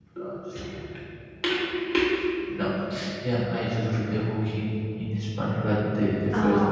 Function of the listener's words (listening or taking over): listening